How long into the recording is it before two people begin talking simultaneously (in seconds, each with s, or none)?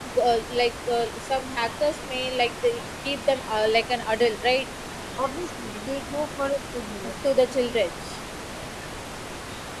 none